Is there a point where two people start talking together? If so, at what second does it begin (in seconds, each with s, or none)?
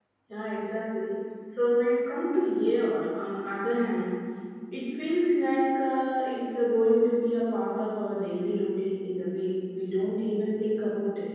none